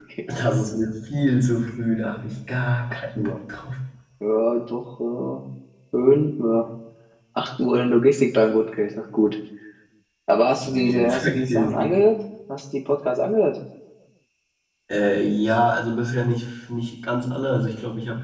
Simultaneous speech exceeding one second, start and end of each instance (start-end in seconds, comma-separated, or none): 10.7-11.9